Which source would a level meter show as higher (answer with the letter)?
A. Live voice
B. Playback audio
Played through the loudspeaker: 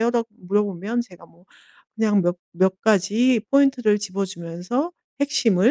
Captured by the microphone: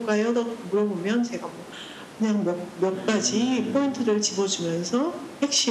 B